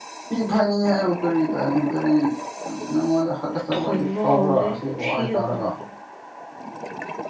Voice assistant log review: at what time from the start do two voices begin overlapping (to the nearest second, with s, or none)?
4 s